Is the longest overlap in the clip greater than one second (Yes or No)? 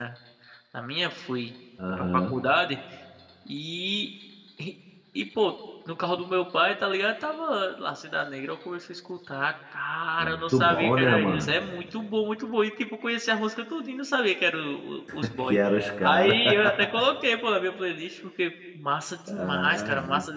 Yes